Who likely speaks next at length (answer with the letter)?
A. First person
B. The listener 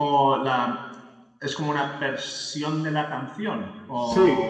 B